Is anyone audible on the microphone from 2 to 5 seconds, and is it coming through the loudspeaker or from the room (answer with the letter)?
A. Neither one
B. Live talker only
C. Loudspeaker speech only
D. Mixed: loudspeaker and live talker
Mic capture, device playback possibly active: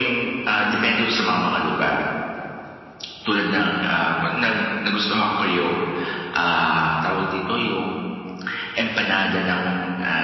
C